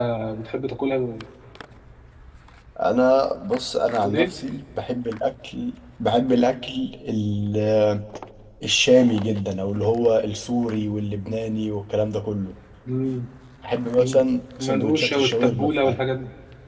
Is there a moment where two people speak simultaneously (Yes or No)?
Yes